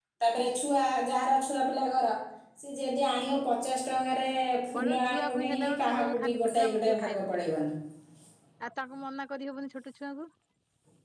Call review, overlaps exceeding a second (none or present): present